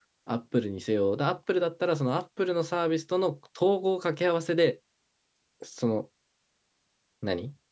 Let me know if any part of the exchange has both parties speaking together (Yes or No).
No